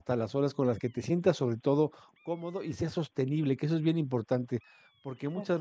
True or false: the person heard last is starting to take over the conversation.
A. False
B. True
A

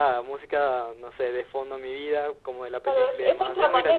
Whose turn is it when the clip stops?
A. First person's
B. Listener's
B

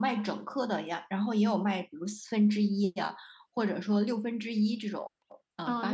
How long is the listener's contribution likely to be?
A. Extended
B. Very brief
A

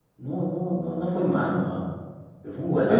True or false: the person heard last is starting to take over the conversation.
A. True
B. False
A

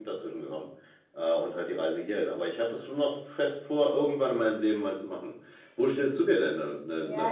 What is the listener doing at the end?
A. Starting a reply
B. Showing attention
A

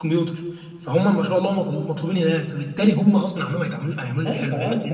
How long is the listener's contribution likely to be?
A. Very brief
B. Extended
B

